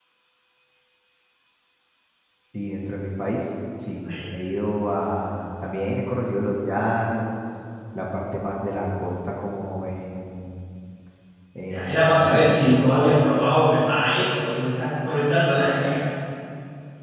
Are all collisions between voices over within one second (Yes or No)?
No